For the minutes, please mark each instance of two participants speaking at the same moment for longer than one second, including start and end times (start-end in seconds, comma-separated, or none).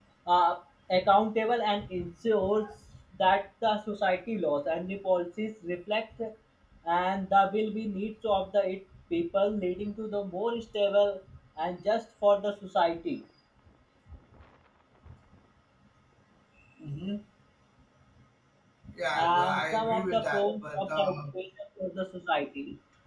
19.1-21.1